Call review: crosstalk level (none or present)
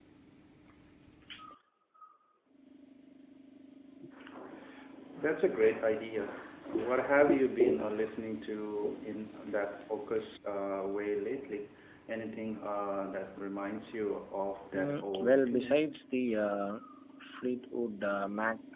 present